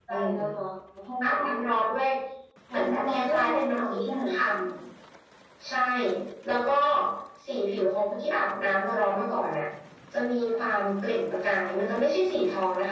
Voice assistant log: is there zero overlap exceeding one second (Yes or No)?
No